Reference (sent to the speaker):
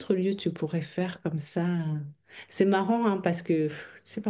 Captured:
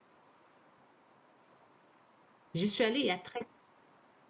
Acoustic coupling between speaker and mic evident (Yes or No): No